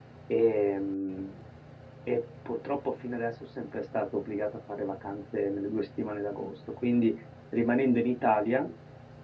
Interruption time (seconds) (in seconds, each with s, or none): none